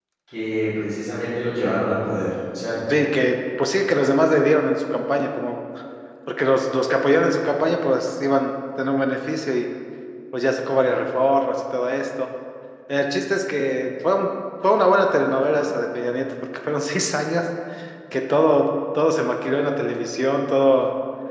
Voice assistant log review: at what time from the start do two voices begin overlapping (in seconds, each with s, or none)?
none